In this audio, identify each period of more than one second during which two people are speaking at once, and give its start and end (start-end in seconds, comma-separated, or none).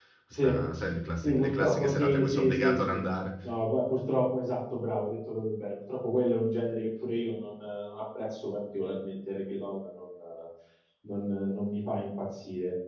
1.2-3.0